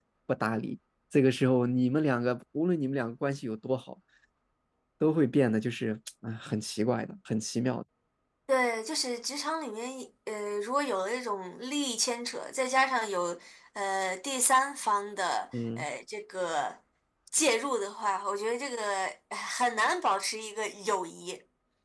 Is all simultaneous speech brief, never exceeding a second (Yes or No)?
Yes